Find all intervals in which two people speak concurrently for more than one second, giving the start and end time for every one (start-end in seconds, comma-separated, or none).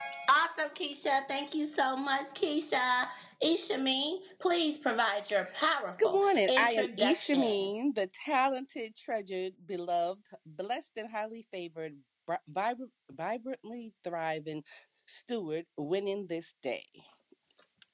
6.0-7.7